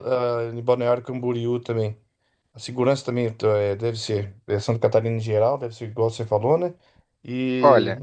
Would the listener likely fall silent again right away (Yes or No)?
Yes